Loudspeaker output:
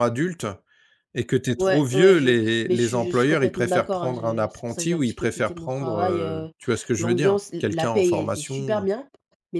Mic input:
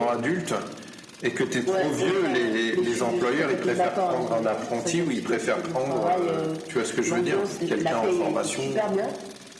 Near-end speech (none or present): present